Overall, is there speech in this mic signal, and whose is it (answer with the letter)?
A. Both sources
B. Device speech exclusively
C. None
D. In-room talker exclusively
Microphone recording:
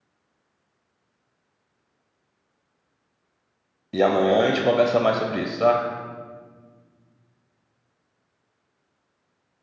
D